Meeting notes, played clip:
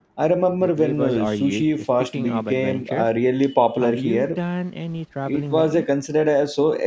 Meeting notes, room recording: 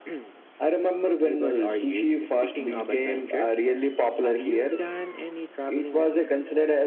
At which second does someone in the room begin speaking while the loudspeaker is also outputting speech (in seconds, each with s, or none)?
none